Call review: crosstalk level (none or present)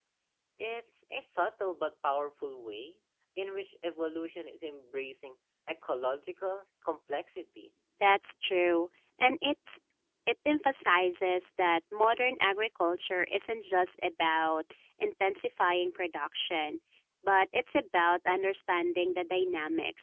none